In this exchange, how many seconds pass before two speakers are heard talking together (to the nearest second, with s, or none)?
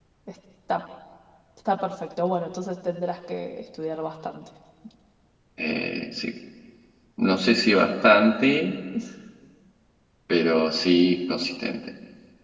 none